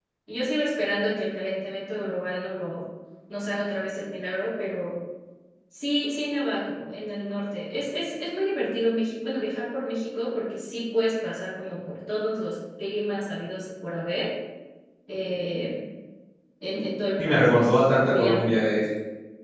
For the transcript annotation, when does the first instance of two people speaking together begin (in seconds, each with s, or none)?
17.2 s